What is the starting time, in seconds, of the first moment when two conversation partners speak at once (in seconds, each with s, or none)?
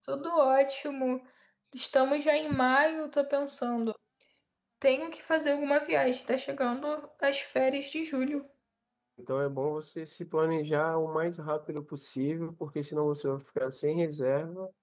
none